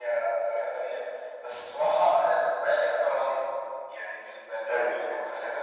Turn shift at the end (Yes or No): No